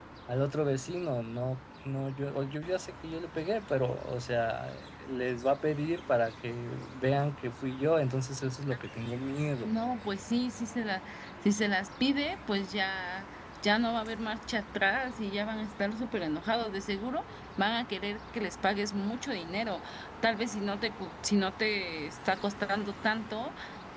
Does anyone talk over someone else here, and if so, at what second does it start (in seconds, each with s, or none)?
none